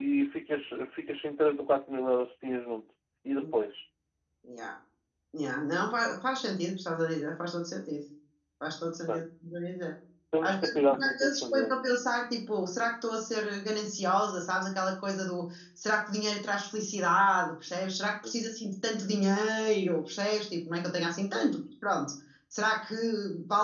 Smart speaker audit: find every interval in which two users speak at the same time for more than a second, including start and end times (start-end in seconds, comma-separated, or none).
10.4-11.8